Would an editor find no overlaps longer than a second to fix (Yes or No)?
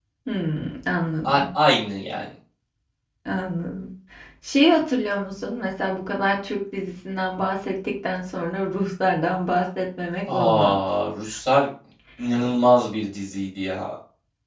Yes